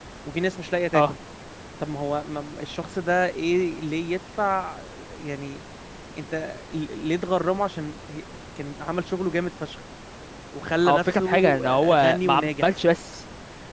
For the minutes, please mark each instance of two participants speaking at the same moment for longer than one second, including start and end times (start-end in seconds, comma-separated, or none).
10.8-12.7